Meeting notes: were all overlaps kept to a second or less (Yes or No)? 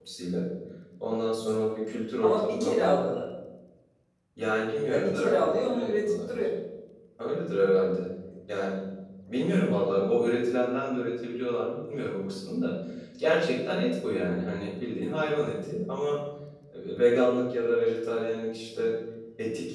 No